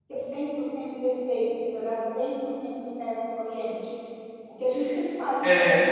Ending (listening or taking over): listening